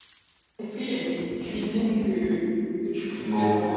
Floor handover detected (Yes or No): Yes